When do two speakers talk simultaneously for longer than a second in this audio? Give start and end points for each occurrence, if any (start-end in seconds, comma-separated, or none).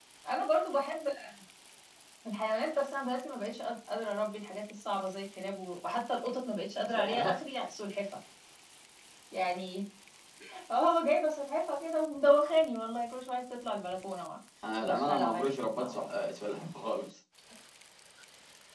14.8-16.0